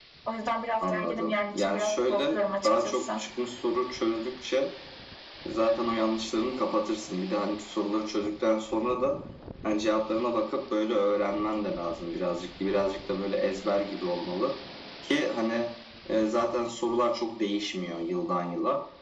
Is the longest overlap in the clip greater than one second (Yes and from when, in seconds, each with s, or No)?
Yes, from 0.8 s